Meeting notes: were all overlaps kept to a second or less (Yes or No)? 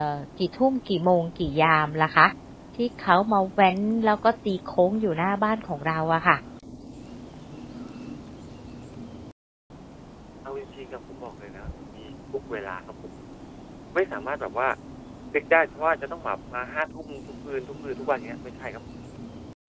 Yes